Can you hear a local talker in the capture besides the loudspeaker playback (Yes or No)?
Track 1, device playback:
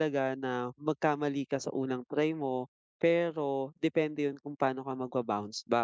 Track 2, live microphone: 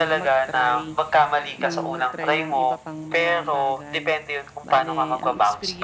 Yes